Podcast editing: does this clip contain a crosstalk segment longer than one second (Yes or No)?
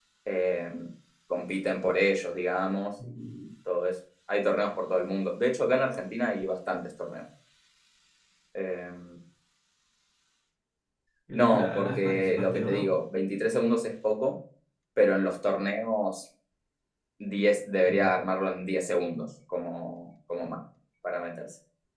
Yes